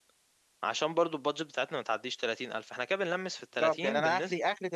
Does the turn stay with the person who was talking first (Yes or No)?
No